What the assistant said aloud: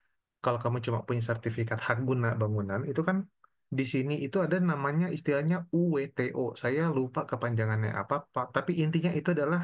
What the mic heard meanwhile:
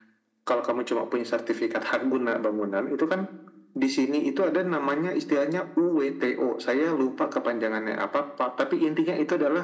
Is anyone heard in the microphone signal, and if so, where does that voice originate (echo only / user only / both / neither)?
echo only